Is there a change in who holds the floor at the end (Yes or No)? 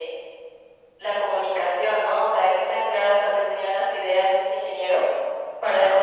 No